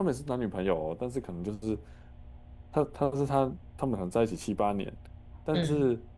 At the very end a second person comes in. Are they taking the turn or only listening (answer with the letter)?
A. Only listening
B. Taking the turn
A